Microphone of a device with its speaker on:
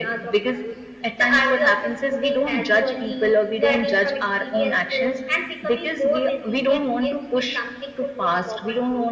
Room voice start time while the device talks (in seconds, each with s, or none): none